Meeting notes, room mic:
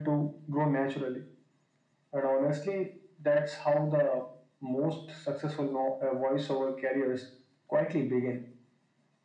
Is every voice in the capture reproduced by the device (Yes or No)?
Yes